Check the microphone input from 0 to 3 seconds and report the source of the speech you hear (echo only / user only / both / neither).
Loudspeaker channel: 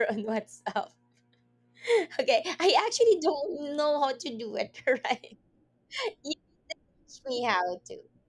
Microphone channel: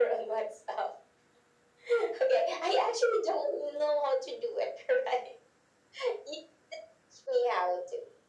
echo only